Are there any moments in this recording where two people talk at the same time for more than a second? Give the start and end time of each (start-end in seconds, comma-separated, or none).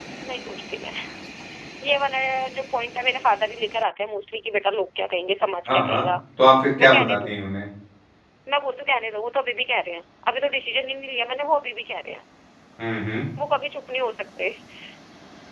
none